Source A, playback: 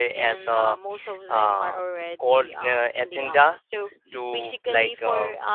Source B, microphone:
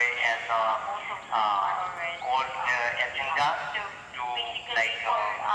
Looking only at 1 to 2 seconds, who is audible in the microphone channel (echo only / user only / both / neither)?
echo only